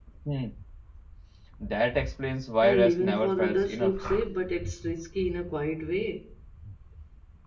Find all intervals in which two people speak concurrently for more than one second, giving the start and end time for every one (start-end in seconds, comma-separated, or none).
2.6-3.9